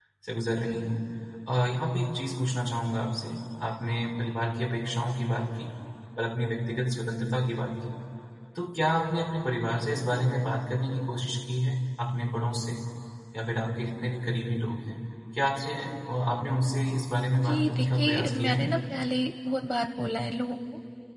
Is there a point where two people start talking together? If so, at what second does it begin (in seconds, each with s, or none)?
17.4 s